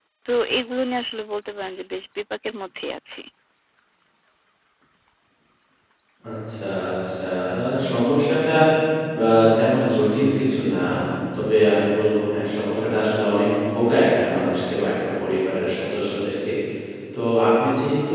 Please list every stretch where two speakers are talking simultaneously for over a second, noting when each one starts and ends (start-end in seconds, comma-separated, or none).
none